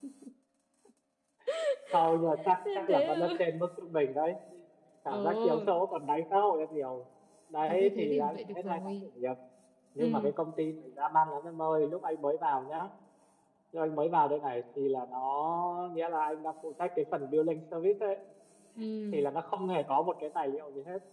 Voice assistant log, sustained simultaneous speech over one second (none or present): present